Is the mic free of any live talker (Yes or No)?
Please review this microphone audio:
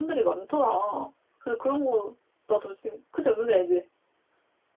Yes